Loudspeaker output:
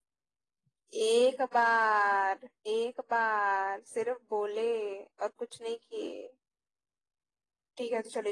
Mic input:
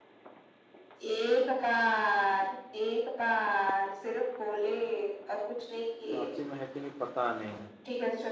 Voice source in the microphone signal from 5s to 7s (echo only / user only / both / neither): both